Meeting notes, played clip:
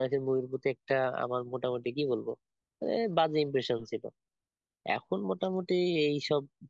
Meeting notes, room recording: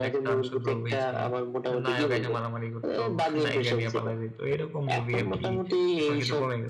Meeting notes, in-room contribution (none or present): present